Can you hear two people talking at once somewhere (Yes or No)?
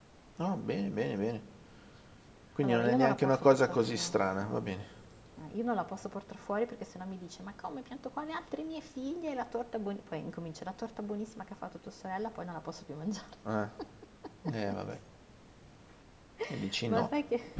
Yes